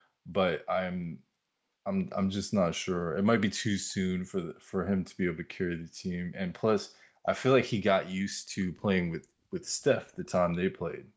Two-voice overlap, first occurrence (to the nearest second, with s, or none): none